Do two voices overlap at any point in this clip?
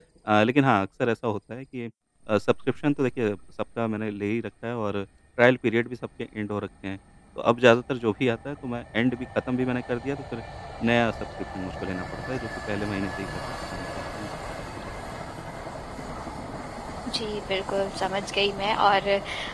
No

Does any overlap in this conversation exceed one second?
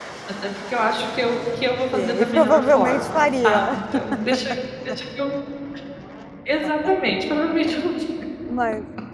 Yes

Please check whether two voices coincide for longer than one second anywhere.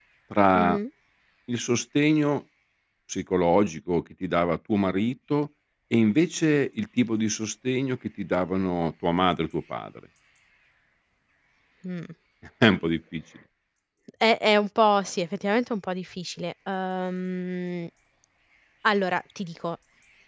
No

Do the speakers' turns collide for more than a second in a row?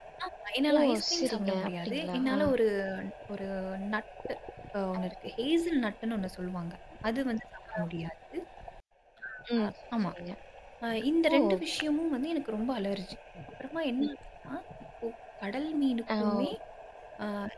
Yes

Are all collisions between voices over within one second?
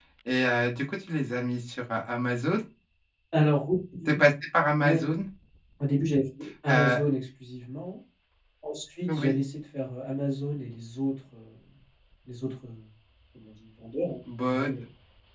Yes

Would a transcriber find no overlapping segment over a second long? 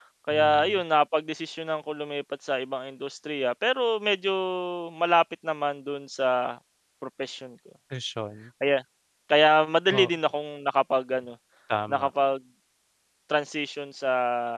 Yes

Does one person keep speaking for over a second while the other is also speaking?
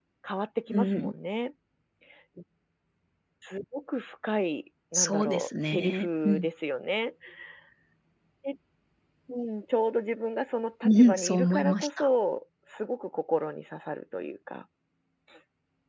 Yes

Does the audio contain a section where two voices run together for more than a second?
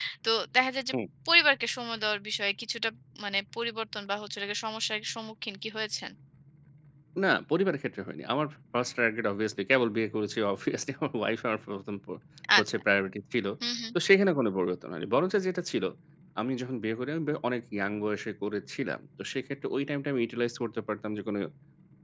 No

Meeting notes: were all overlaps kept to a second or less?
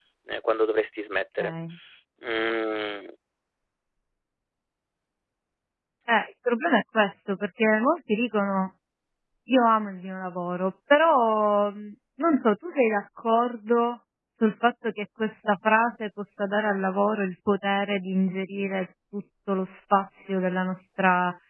Yes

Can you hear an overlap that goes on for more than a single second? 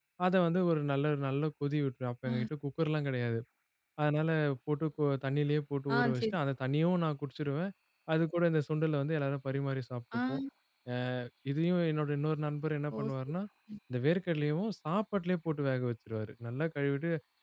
No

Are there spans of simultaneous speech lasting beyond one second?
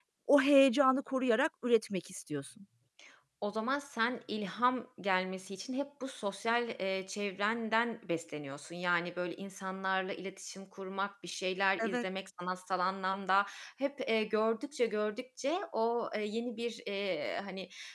No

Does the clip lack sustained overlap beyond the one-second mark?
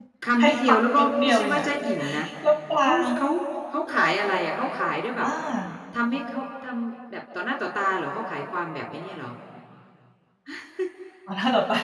No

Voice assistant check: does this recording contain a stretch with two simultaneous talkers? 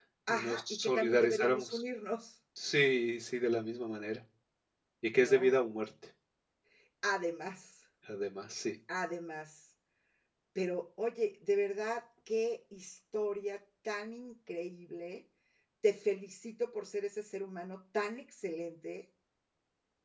Yes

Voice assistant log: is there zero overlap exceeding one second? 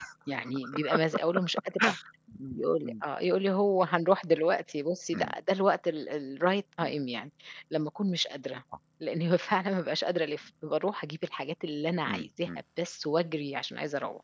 Yes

